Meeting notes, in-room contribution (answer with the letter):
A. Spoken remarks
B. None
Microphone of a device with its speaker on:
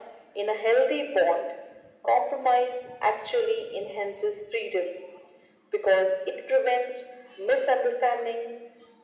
B